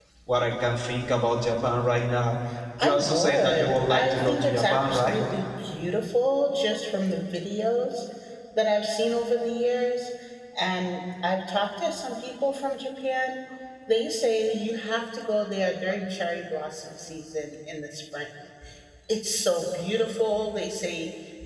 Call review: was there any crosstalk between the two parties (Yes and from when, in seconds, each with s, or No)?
Yes, from 2.8 s